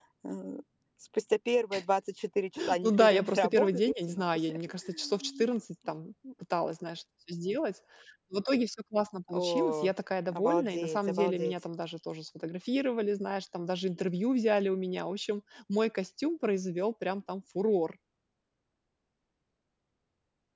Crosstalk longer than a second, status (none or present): present